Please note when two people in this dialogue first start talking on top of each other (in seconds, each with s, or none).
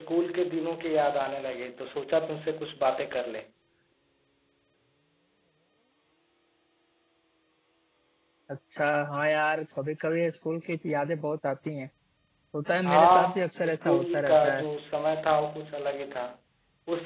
12.8 s